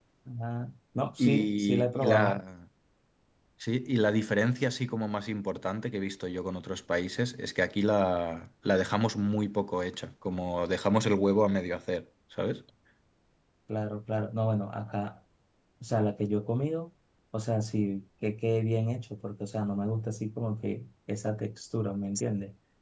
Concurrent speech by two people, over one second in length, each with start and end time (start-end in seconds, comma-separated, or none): 1.2-2.4